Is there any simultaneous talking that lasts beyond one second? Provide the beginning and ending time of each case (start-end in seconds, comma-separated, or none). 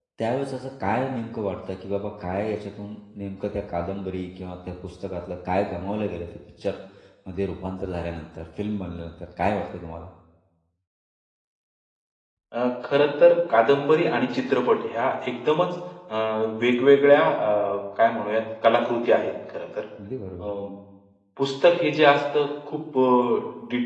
none